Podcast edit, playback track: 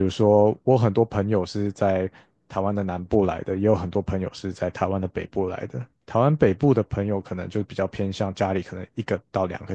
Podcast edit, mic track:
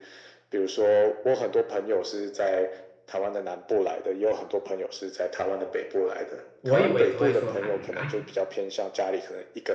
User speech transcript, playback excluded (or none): 我以为只会说台语啦，